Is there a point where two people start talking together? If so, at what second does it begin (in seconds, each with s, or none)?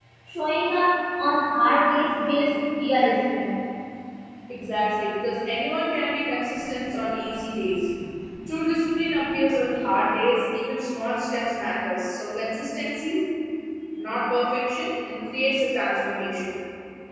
none